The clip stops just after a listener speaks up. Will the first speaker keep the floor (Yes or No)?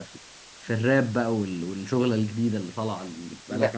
No